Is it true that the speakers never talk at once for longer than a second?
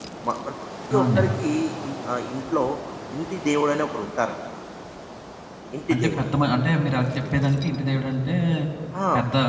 Yes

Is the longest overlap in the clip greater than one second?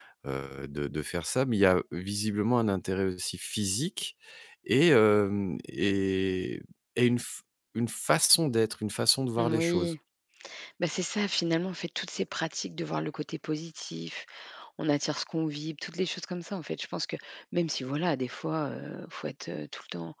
No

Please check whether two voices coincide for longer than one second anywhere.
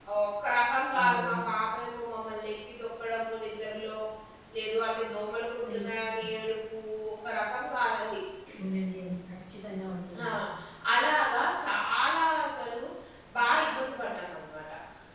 No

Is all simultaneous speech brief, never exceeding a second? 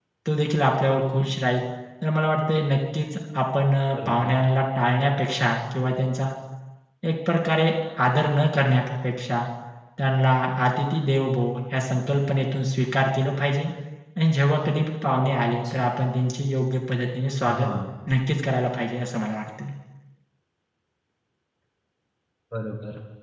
Yes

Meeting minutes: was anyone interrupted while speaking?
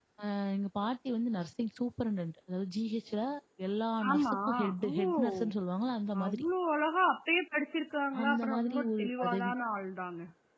Yes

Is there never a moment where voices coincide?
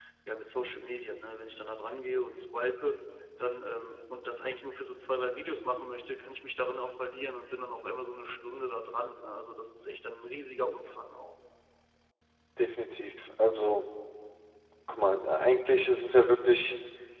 Yes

